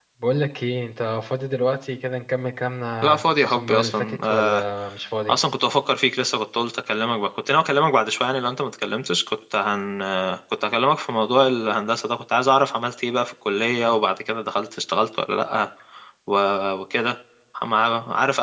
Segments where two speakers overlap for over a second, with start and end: 3.0-4.6

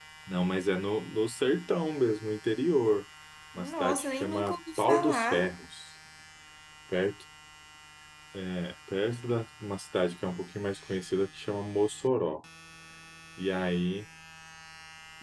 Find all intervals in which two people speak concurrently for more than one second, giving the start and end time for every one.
3.6-5.5

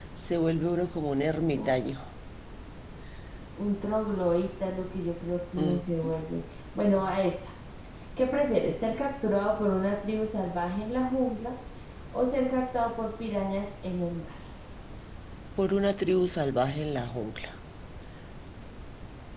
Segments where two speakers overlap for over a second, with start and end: none

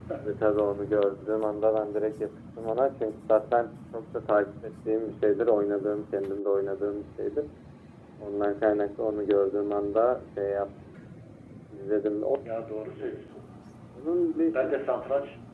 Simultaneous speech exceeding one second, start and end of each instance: none

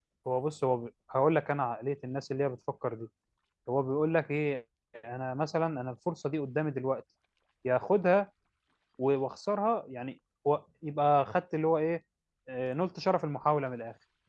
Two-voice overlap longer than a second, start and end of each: none

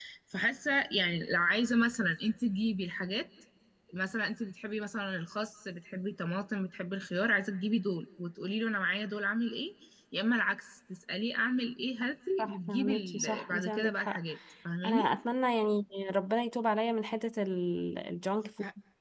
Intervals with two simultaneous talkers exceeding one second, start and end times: 12.4-14.2

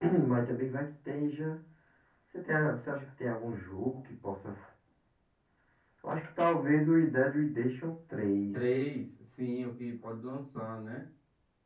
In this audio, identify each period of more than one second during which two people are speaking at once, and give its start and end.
none

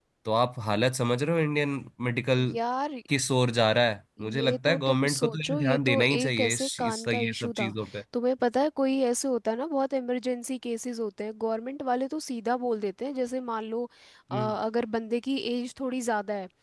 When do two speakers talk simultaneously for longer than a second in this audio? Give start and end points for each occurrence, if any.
4.2-7.7

